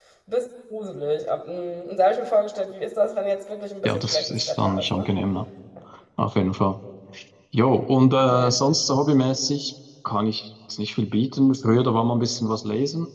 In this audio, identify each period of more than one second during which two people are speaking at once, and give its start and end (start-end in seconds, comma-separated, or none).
3.9-5.1